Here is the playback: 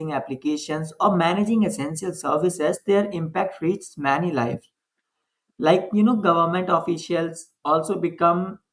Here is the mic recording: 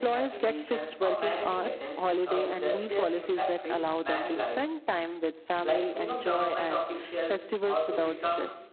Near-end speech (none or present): present